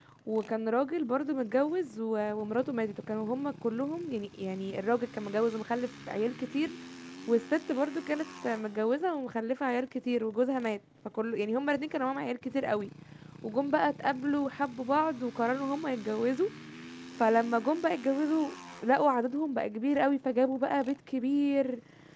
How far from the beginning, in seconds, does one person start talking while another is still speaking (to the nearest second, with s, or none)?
none